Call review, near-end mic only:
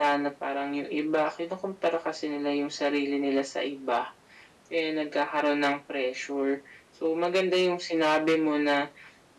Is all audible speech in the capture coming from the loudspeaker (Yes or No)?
Yes